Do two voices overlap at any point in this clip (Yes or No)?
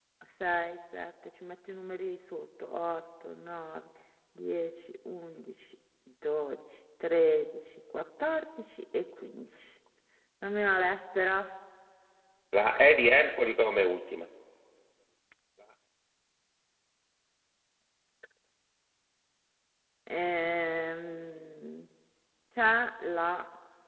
No